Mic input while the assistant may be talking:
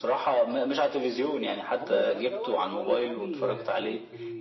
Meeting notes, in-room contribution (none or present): present